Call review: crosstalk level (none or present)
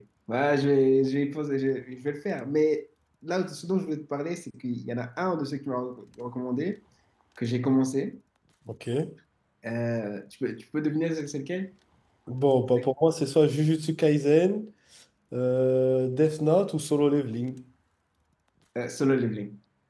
none